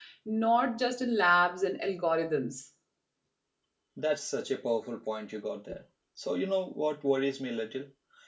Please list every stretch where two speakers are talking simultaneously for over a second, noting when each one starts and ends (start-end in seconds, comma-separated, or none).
none